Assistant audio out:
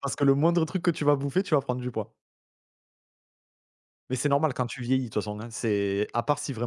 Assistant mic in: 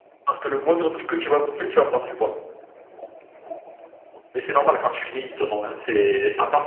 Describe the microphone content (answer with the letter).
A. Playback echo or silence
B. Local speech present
A